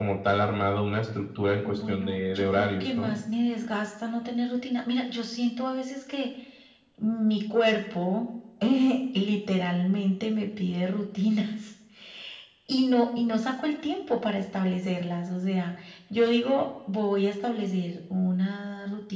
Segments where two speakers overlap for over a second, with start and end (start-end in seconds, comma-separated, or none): 1.6-3.1